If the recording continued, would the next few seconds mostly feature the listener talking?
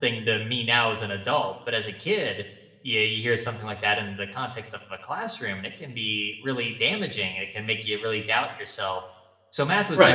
No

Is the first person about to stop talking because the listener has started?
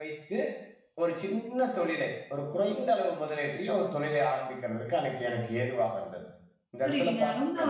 Yes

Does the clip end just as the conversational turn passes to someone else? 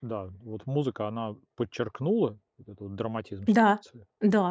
Yes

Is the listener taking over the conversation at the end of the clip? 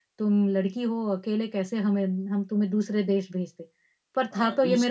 Yes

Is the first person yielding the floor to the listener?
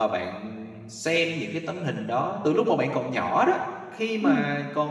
No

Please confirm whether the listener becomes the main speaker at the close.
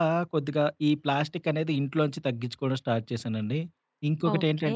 Yes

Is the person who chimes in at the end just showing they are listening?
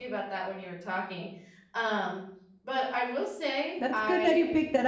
No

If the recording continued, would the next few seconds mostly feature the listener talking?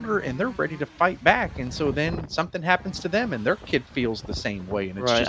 Yes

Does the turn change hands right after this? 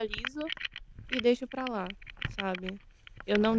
No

